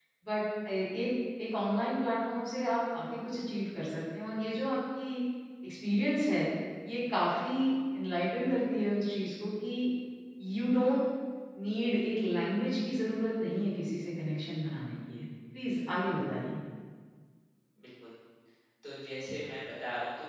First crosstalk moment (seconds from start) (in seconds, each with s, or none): none